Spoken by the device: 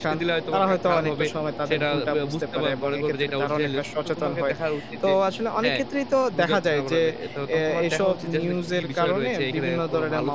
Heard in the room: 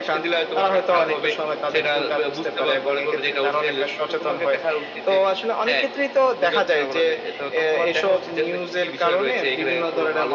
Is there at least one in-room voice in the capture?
No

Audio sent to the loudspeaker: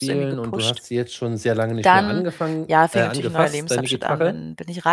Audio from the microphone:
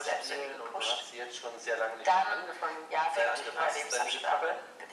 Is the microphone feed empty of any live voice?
Yes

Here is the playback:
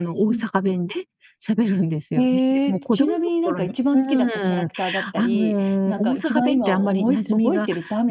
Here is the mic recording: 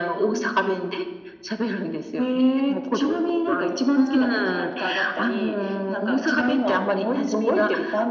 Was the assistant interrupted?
No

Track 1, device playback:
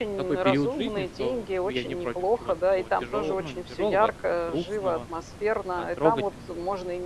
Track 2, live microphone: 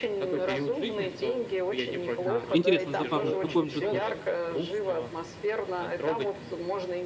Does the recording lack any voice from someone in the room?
No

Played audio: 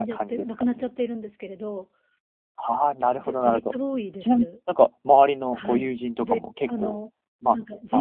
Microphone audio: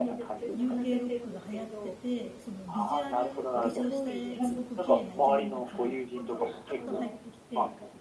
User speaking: Yes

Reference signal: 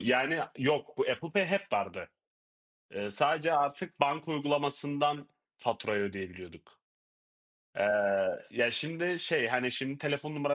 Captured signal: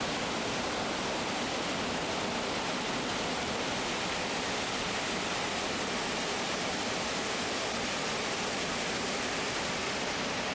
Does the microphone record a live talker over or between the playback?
No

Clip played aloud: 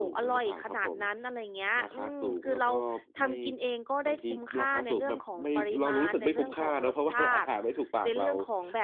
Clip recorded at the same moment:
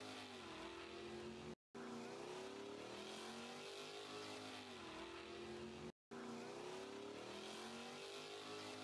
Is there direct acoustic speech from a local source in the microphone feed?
No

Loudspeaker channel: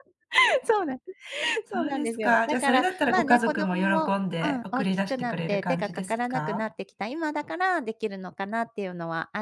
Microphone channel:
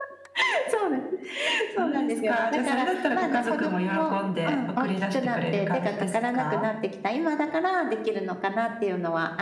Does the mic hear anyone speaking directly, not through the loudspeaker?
No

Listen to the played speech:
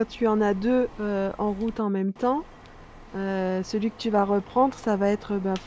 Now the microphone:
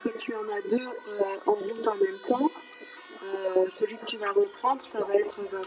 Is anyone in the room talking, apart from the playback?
No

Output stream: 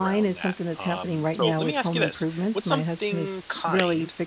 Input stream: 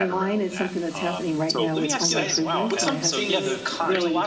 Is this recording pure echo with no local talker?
No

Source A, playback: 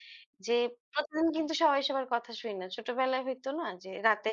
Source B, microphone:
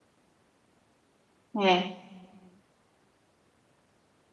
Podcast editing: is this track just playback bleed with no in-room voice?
No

